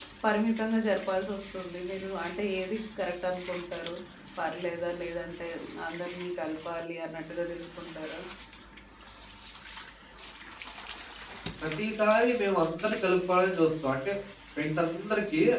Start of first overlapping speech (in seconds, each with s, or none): none